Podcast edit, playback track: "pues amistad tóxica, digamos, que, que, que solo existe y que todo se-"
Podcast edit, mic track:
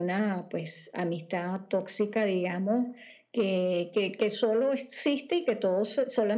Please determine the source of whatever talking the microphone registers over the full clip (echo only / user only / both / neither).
echo only